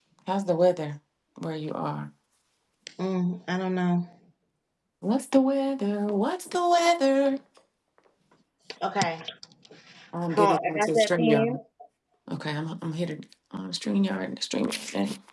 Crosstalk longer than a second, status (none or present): present